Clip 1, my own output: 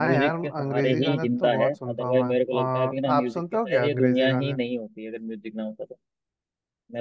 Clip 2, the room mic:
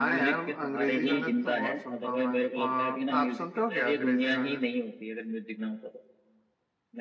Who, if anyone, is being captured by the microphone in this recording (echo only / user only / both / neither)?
echo only